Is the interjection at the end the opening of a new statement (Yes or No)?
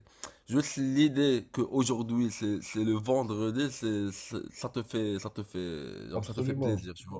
Yes